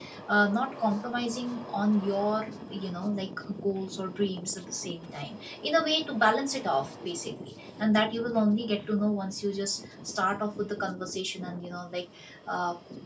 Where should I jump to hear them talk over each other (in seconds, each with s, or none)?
none